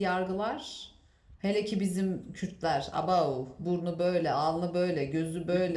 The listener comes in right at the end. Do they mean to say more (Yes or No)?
No